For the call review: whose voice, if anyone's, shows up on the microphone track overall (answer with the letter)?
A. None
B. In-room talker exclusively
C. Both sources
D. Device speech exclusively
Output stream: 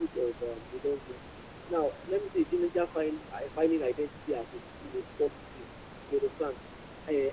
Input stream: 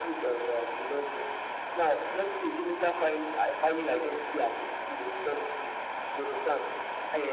D